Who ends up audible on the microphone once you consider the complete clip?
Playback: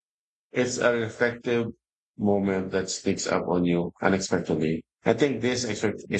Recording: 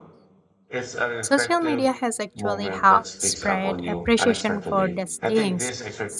both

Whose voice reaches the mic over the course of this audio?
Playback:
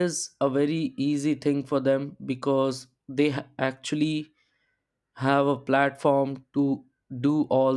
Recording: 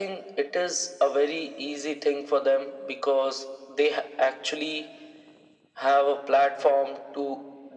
echo only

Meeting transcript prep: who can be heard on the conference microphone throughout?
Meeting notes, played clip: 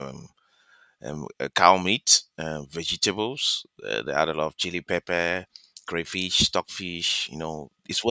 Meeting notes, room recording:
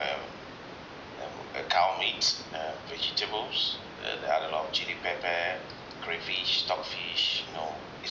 echo only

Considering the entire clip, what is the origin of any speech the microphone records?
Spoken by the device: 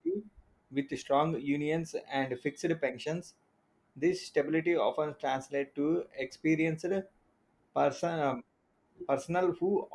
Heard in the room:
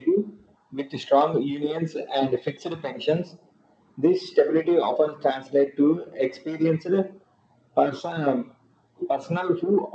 echo only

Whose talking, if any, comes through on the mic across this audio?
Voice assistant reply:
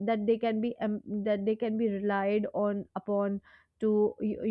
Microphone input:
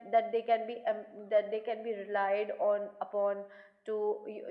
echo only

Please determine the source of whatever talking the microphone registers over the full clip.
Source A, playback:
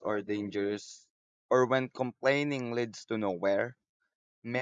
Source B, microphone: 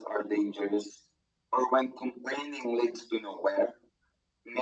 echo only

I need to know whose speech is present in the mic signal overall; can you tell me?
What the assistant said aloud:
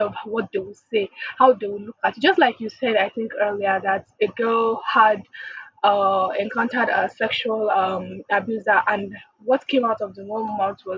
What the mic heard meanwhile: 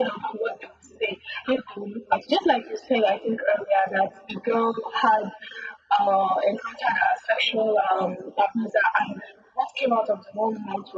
echo only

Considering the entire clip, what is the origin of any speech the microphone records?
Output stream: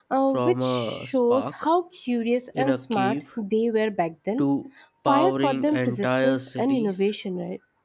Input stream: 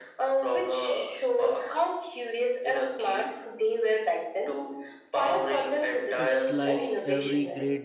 both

